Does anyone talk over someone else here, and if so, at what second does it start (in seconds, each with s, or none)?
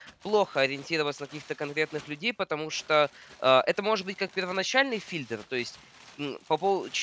none